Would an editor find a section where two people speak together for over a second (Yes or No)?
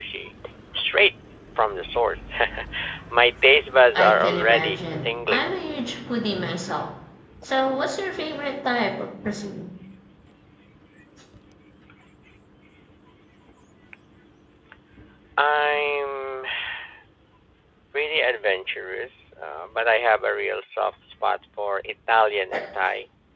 Yes